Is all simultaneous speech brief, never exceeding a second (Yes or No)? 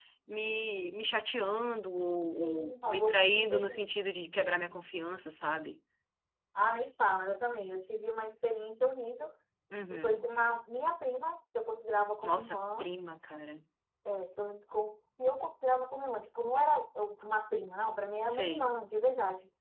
No